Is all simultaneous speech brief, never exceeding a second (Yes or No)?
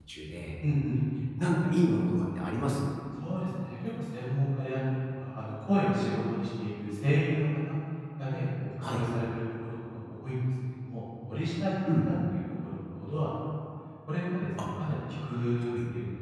Yes